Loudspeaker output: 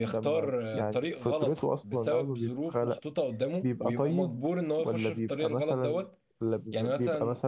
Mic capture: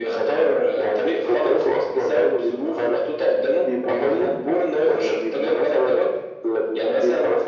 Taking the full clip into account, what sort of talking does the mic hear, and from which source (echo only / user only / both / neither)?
echo only